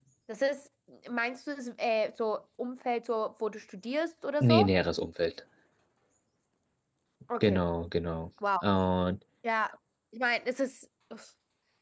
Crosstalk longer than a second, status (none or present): none